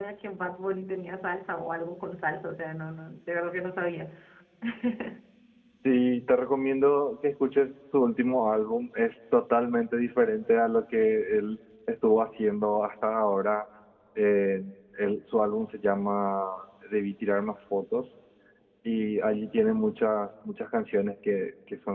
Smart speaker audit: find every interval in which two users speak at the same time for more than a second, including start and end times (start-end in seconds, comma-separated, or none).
none